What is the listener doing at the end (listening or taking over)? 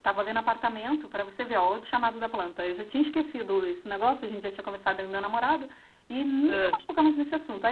listening